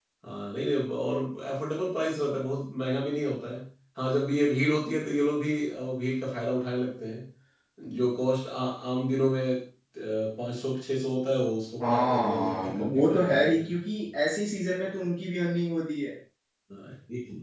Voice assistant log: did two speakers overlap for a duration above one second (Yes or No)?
Yes